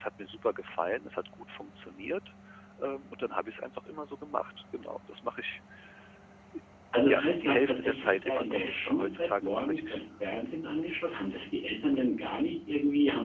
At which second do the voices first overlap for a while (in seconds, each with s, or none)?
7.1 s